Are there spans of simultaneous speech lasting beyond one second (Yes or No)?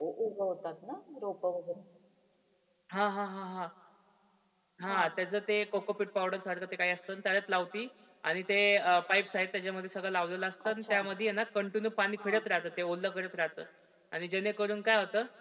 No